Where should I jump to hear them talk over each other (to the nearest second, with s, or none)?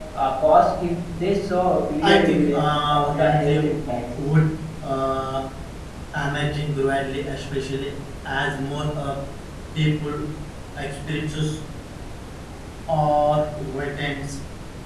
2 s